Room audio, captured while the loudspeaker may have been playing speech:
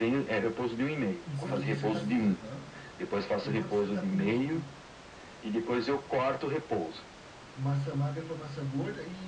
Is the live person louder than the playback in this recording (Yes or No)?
No